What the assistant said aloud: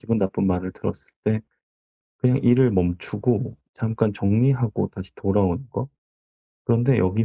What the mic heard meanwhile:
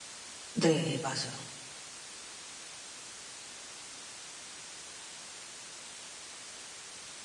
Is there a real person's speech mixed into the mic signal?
Yes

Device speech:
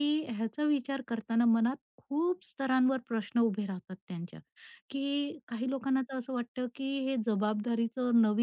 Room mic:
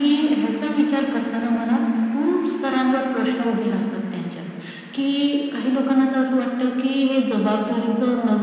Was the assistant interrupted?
No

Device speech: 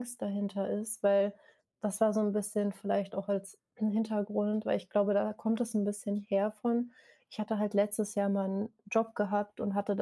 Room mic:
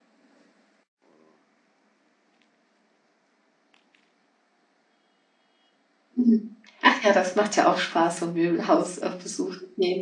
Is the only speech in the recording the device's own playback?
No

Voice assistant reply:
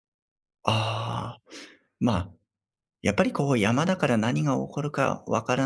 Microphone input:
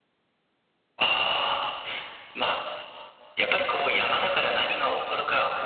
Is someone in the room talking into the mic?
No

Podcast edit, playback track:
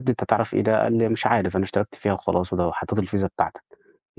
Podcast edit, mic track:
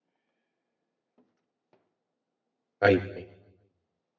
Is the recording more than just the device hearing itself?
Yes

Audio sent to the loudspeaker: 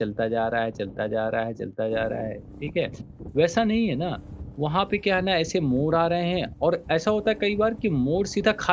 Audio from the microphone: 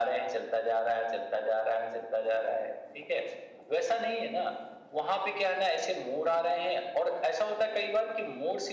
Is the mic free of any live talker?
Yes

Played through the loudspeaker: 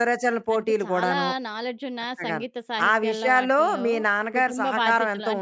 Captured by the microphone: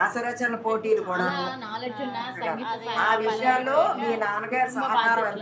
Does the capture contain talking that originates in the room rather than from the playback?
Yes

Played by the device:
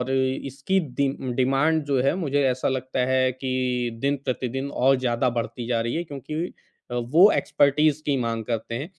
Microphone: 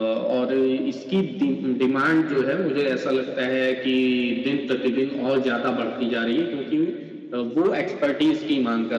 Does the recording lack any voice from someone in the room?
Yes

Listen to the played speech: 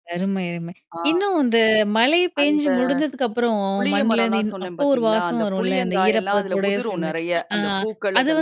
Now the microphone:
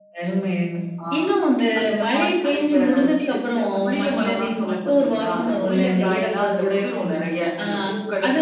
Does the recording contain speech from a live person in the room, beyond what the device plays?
Yes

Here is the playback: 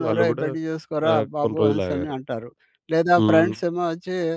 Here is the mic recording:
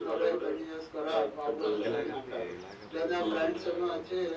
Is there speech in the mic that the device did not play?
Yes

